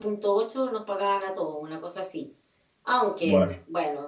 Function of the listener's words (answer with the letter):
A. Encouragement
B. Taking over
A